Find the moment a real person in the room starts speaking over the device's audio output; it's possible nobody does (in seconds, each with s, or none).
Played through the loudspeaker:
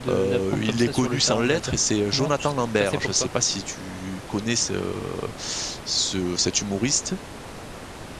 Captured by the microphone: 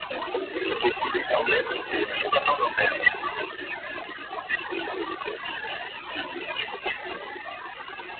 none